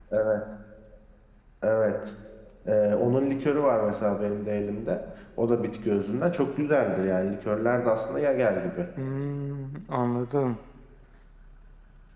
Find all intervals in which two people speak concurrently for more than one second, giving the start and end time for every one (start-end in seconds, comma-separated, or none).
none